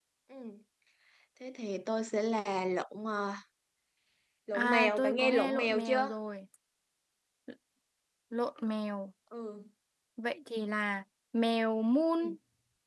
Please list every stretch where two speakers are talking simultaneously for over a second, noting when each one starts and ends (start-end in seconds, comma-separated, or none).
4.5-6.1